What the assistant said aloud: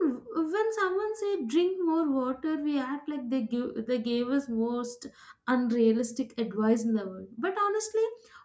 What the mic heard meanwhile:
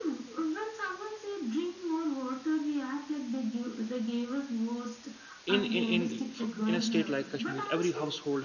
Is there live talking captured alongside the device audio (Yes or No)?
Yes